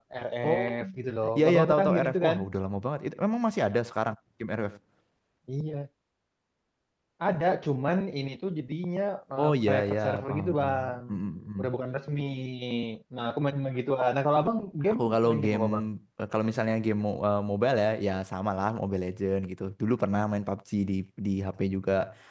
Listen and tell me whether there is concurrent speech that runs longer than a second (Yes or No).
Yes